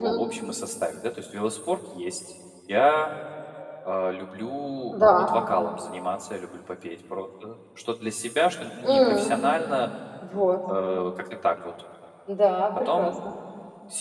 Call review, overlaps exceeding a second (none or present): none